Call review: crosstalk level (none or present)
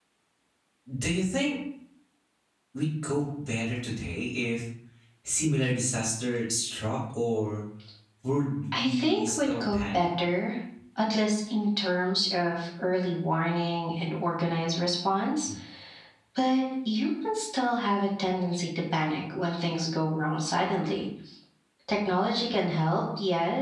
present